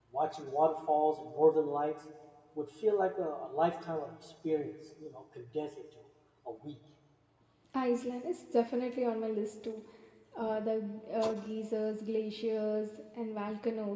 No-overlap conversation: Yes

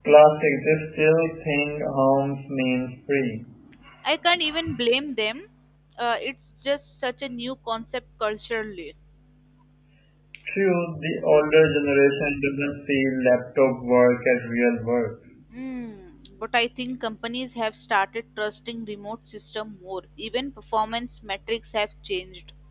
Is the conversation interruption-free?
Yes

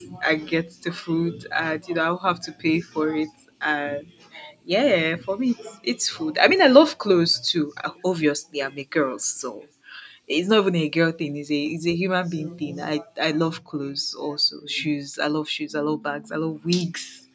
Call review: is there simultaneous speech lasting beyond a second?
No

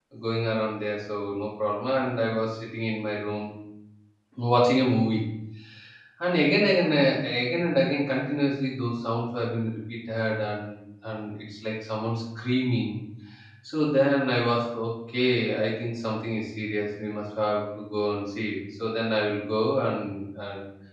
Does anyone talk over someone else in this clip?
No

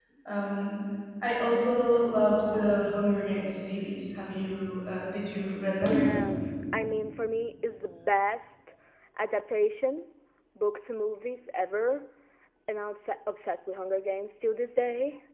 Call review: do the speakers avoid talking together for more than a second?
Yes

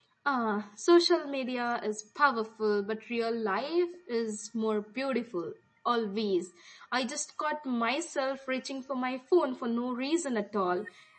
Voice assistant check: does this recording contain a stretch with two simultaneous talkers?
No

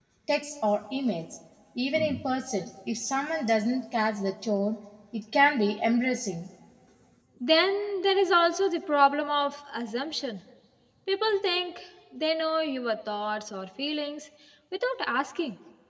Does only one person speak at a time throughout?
Yes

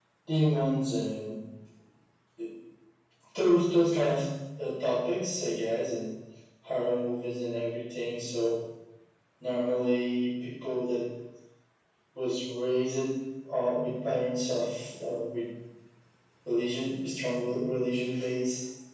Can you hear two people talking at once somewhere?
No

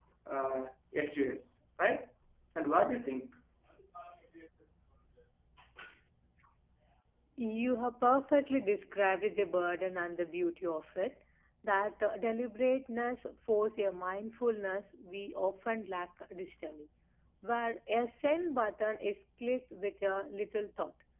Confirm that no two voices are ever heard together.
Yes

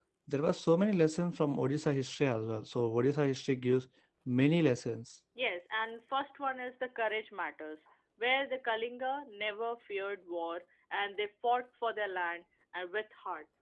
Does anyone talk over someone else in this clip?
No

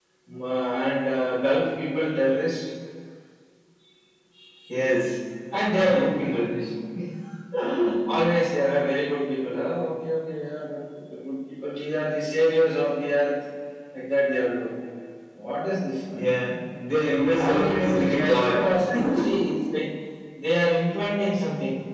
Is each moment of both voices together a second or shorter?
No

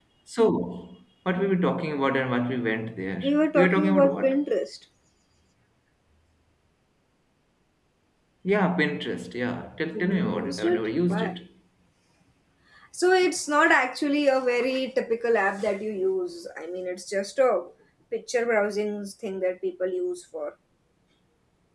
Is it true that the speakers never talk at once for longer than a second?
No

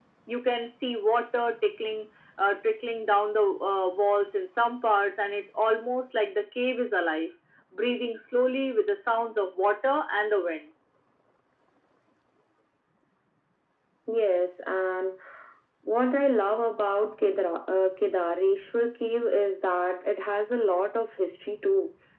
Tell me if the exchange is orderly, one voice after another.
Yes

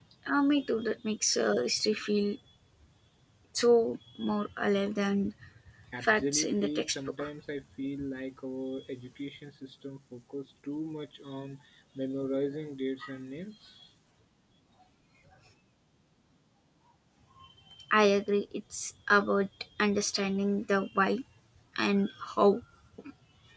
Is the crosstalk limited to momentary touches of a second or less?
No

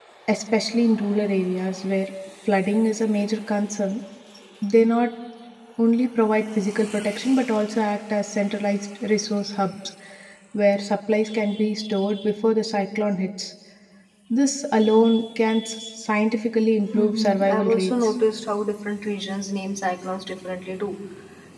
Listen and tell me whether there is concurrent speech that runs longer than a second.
Yes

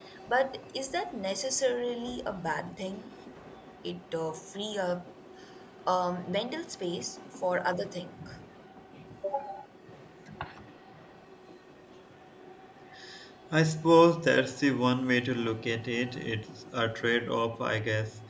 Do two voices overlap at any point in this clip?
No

